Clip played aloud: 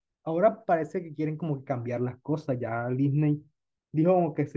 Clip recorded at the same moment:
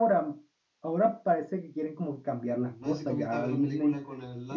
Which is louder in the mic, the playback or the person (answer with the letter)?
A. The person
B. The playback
B